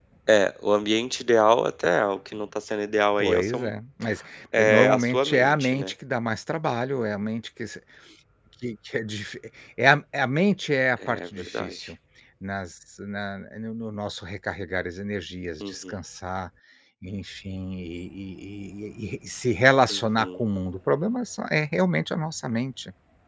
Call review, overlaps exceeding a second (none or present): present